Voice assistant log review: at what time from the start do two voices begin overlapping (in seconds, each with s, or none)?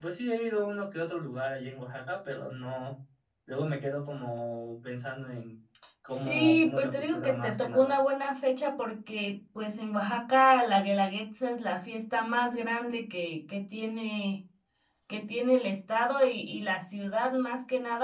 6.2 s